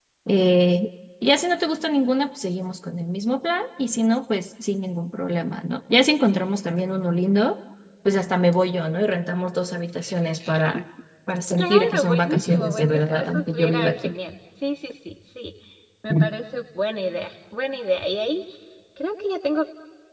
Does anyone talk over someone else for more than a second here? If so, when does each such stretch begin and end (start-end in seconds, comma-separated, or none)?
11.6-14.1